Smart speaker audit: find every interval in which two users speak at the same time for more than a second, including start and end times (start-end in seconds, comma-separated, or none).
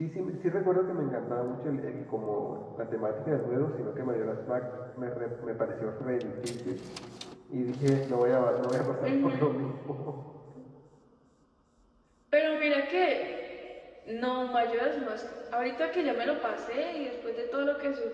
none